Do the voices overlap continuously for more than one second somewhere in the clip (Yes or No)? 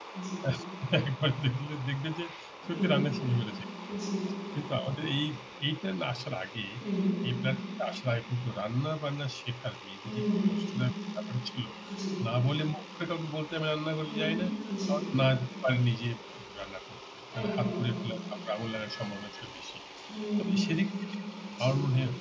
No